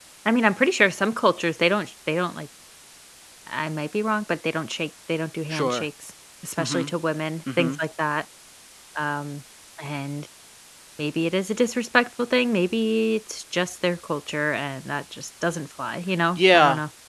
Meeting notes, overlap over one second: none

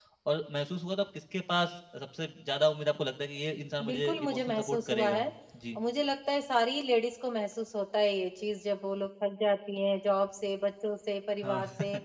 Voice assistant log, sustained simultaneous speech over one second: present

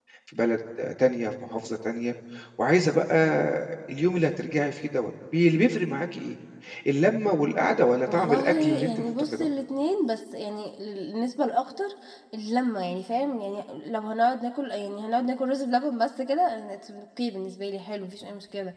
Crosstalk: present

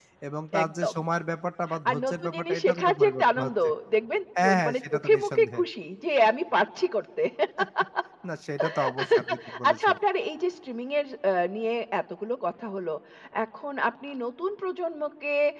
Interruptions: present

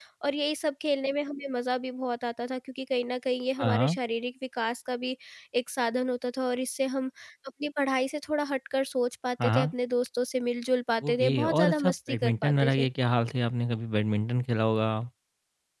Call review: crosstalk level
present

